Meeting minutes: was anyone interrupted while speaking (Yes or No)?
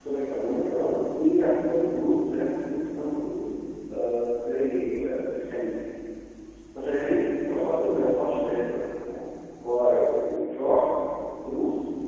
No